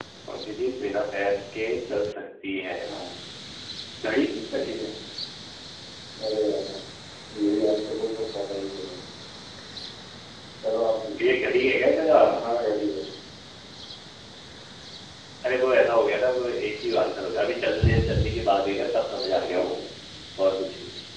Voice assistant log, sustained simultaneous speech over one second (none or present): none